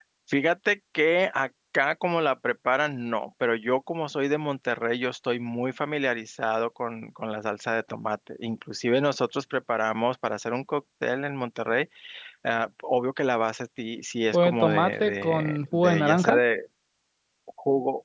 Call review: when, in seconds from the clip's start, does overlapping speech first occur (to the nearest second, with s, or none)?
14 s